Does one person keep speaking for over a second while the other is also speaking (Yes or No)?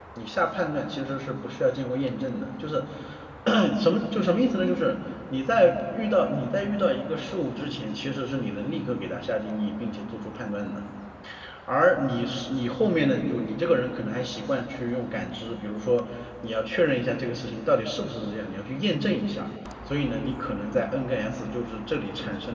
No